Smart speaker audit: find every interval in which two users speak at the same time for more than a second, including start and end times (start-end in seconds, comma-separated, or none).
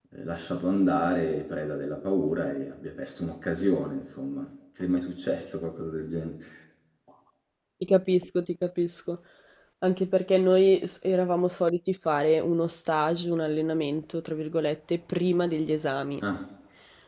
none